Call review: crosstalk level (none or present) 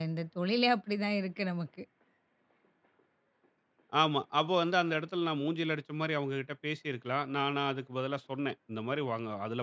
none